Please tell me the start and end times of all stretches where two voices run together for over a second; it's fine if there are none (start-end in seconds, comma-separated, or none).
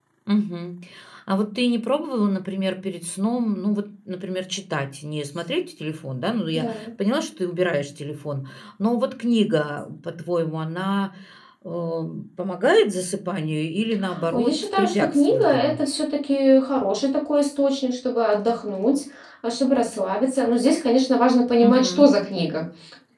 14.3-15.7